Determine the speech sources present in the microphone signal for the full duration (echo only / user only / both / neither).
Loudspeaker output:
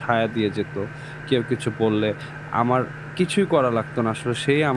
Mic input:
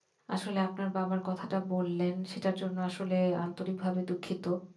user only